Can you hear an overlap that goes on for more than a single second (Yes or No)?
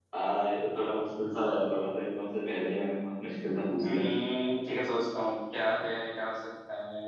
No